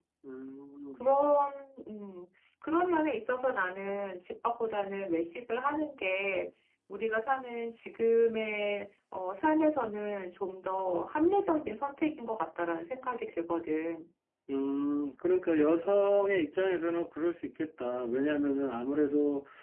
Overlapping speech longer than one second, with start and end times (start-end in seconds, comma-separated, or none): none